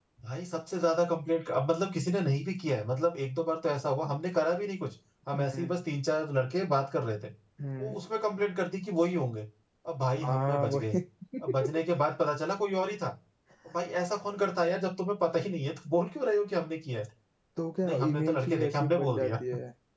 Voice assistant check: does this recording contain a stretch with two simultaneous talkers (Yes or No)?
Yes